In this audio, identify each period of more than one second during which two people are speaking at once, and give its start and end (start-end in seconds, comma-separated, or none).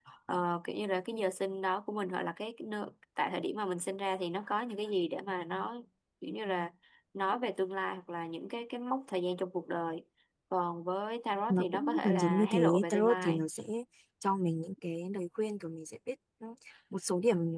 11.5-13.5